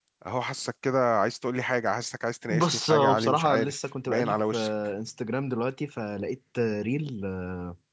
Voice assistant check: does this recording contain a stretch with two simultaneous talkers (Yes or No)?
Yes